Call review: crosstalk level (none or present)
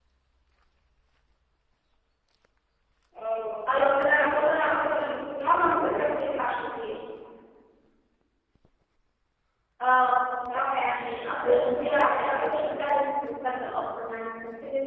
present